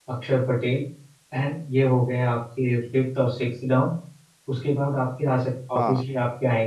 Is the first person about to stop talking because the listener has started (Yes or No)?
No